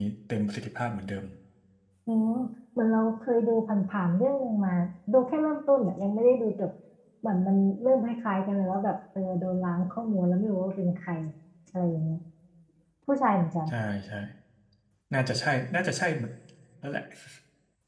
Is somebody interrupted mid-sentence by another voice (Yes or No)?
No